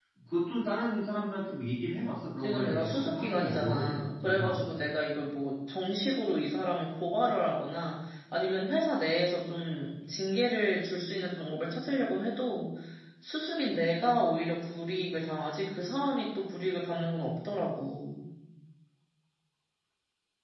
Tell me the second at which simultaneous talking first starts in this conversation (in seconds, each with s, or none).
2.4 s